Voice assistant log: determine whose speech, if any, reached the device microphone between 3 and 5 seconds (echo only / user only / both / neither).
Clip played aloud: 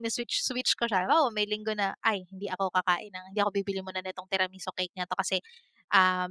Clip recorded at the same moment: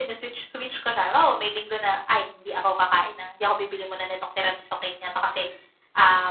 echo only